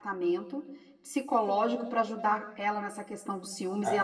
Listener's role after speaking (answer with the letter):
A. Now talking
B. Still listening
A